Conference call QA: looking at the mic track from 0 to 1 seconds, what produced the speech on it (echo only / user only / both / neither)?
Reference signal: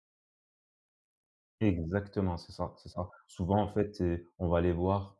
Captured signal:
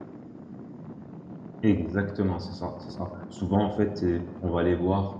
neither